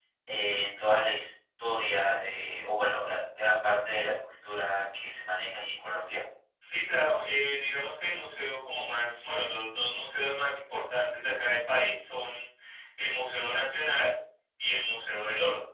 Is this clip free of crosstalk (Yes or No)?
Yes